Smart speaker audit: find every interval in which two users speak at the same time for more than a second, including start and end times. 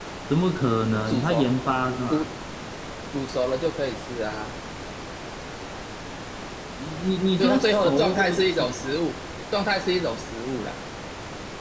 7.4-8.6

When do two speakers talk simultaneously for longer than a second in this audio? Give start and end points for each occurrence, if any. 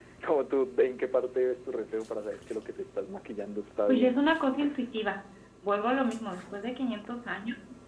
none

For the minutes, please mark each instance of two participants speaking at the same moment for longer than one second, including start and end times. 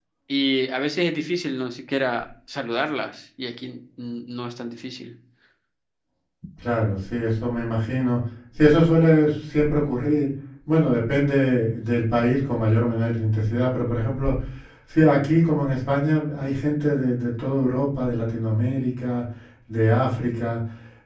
none

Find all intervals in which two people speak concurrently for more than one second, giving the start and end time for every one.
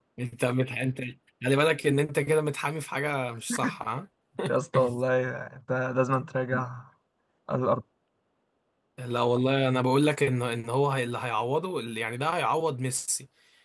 none

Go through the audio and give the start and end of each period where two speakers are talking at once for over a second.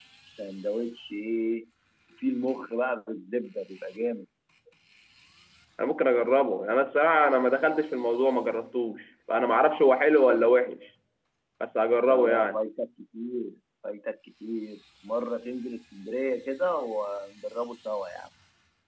none

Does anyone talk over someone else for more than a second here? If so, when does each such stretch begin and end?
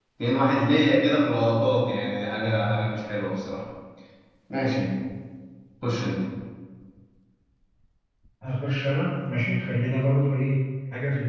none

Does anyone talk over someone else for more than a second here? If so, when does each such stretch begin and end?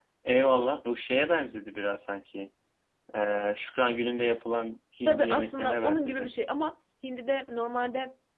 5.0-6.3

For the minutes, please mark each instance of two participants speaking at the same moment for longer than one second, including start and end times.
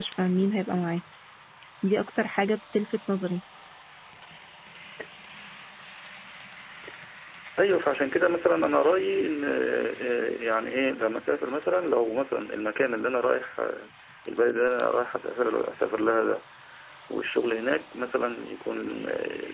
none

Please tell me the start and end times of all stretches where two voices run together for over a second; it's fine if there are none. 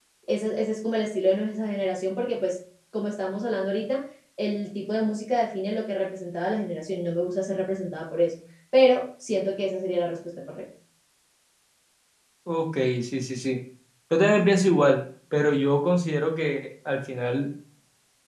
none

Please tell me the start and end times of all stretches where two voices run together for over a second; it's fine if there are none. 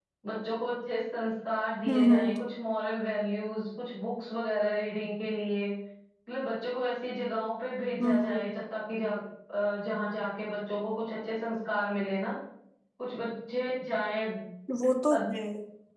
none

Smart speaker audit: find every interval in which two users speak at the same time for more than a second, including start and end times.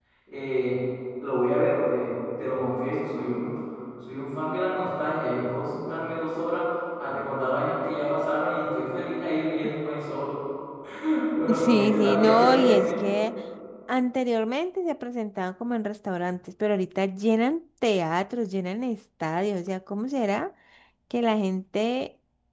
11.5-12.9

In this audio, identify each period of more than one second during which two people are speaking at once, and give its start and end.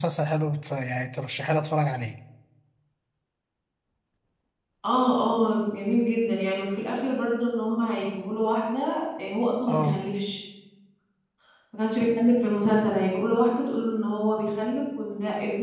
none

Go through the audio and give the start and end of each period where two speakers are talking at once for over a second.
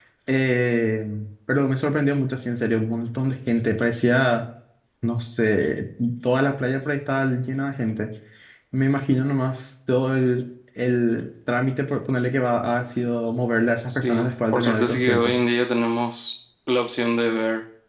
13.9-15.4

